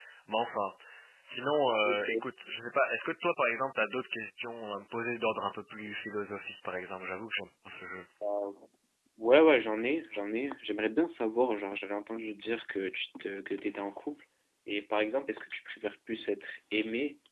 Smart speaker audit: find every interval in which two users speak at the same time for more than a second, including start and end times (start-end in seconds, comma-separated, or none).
none